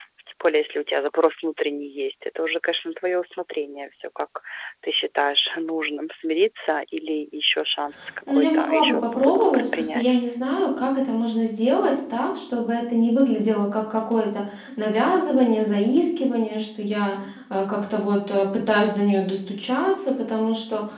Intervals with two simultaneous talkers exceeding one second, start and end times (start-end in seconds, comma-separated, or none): 8.3-10.0